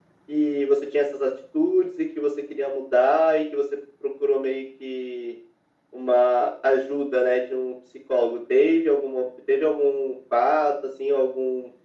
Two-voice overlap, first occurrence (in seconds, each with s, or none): none